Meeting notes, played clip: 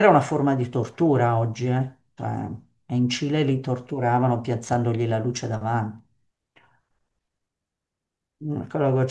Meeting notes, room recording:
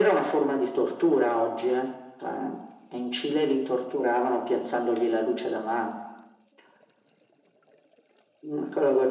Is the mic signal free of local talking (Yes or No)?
Yes